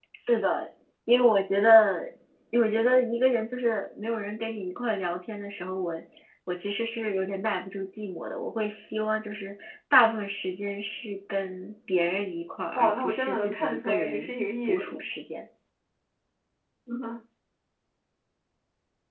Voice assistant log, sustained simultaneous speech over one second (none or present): present